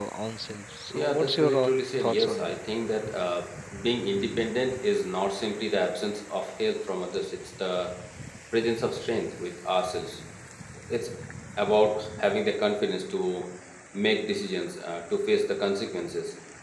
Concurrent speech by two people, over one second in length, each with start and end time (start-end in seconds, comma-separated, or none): 0.9-2.6